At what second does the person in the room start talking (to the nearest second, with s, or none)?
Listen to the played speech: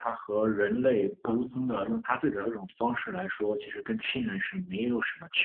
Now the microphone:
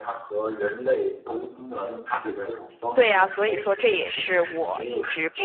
3 s